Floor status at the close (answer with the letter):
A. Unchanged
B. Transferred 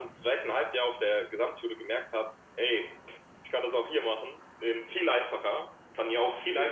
A